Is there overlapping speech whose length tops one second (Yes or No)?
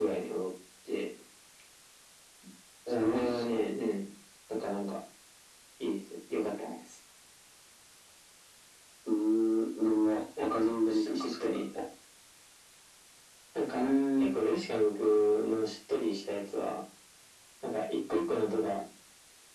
Yes